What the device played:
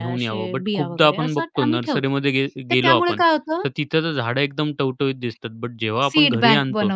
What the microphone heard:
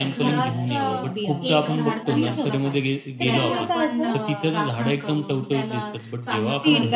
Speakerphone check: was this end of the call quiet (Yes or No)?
No